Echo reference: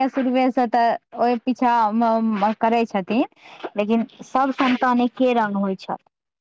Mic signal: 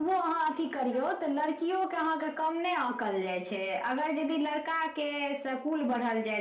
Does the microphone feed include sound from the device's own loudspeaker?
No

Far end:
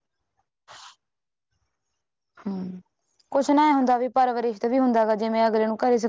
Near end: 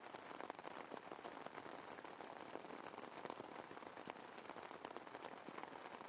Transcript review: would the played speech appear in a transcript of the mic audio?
No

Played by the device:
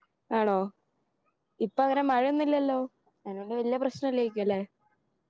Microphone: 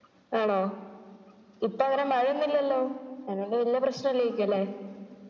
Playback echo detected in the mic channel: Yes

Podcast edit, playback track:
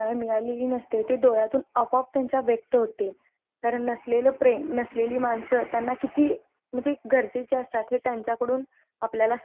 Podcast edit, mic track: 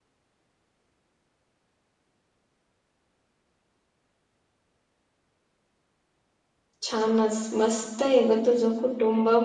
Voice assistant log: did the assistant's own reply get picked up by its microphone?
No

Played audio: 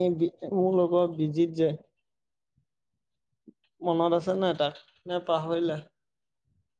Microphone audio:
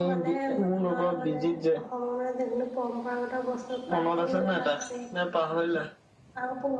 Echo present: Yes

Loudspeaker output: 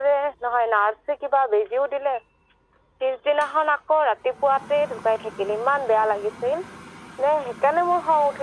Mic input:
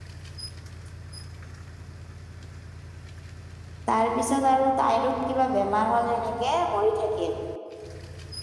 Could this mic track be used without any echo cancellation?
Yes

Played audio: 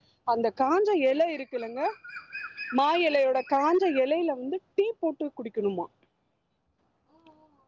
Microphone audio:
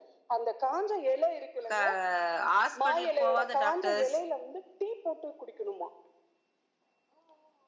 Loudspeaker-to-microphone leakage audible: Yes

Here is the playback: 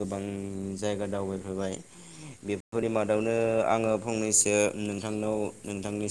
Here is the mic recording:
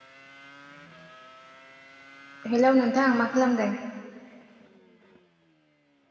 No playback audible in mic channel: Yes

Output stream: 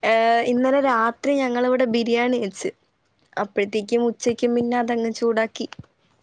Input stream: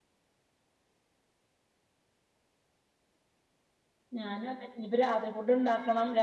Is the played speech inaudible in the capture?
Yes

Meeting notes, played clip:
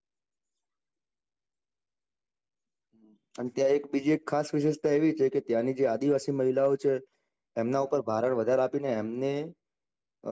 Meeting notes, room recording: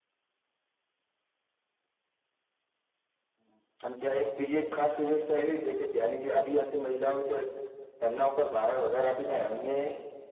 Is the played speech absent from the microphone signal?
No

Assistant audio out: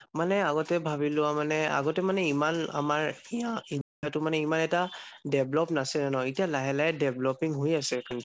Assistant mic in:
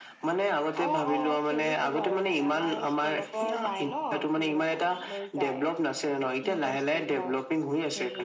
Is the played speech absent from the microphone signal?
No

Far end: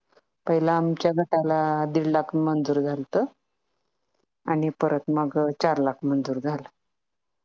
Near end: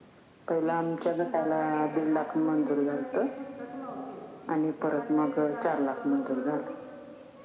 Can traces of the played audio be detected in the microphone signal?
Yes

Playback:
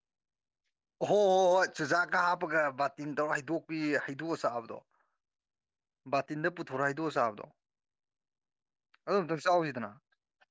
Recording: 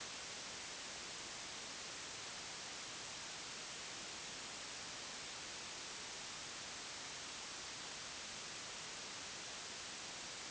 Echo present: No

